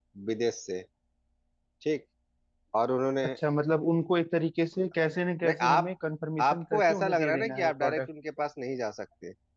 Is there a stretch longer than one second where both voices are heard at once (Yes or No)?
Yes